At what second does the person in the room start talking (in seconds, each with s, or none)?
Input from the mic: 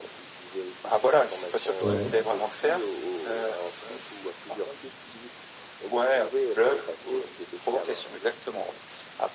1.8 s